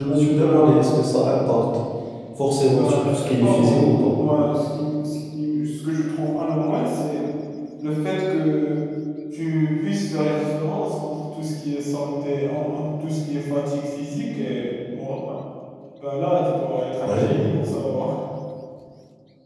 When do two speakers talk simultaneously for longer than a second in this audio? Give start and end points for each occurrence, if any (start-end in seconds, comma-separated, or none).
2.8-4.1